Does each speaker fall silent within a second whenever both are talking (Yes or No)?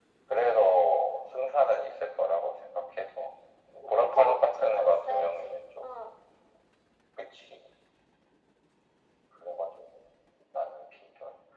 No